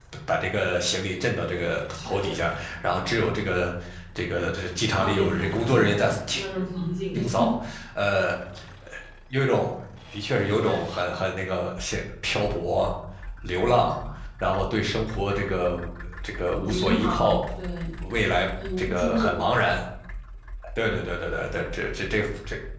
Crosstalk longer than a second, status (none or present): present